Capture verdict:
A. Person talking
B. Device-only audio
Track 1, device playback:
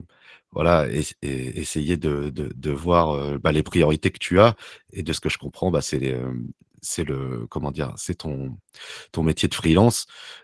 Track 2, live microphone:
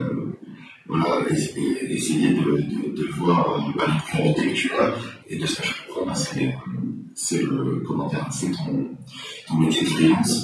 B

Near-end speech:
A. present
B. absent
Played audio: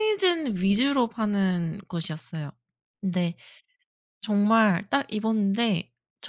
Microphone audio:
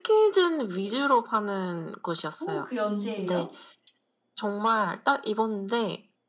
A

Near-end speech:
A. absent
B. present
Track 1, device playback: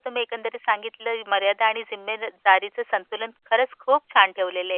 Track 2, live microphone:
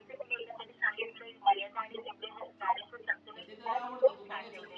B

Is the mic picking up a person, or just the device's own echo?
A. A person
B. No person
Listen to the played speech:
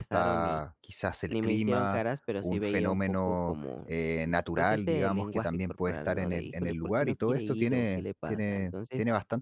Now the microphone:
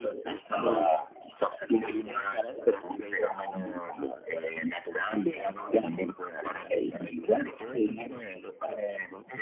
B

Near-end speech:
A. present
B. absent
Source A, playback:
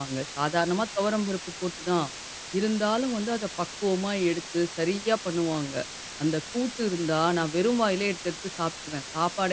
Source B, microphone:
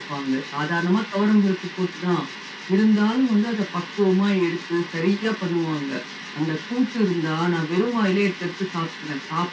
B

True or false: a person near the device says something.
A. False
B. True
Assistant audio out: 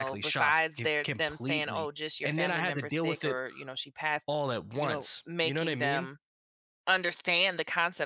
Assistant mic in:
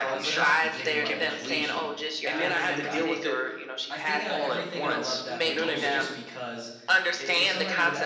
B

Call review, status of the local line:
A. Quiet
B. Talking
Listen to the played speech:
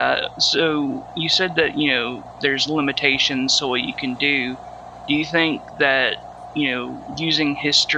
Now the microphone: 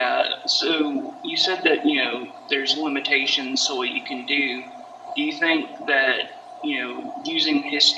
A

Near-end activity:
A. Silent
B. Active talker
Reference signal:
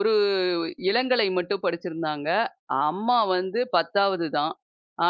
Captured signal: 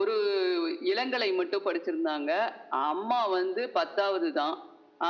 A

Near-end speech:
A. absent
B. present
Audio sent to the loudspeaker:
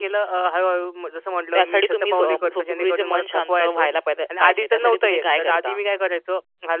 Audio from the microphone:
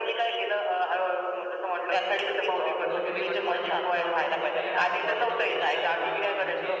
B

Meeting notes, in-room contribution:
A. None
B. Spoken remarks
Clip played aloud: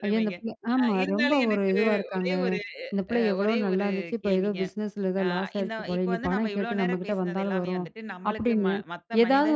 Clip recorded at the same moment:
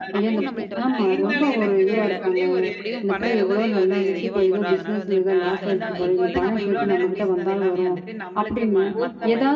B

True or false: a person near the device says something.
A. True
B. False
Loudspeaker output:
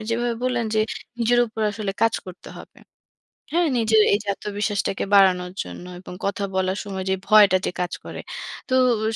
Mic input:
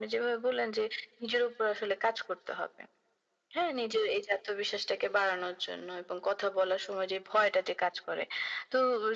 B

